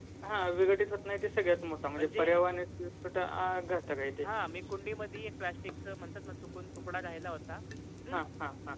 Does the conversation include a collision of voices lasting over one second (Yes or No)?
No